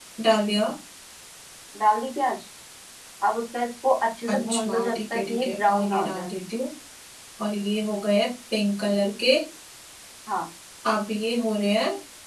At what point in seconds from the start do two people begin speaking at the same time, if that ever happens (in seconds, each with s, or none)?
4.3 s